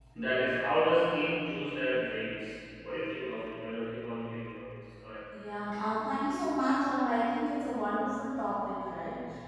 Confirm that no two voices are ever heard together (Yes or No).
Yes